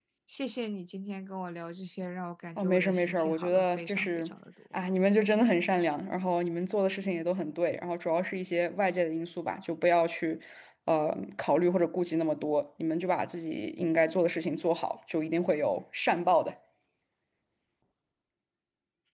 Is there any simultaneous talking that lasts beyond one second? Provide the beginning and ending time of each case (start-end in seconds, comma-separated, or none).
2.6-4.3